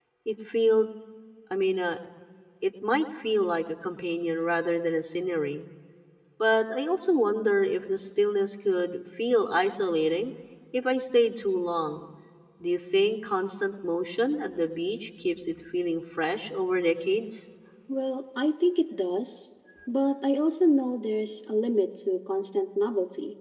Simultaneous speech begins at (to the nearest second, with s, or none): none